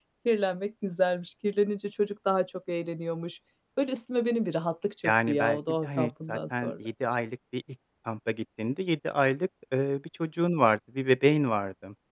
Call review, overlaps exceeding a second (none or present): present